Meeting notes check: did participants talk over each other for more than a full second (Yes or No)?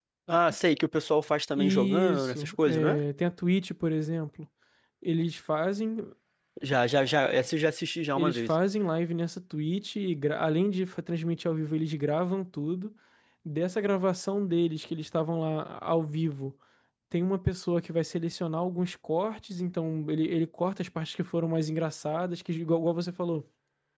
Yes